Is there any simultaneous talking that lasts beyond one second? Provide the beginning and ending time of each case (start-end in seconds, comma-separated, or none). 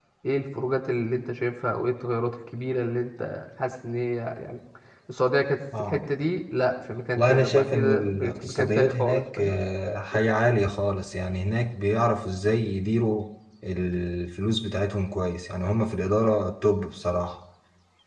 7.2-9.6